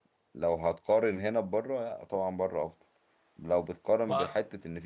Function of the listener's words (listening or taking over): listening